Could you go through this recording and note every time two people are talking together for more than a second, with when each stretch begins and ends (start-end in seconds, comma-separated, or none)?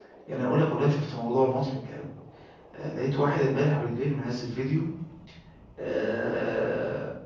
none